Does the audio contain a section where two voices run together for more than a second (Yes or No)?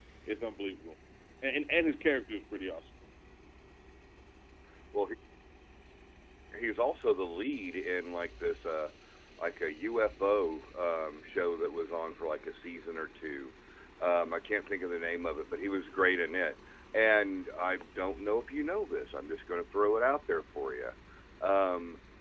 No